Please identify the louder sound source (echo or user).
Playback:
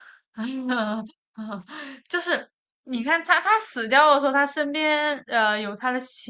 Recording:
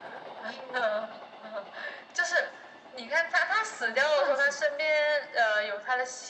echo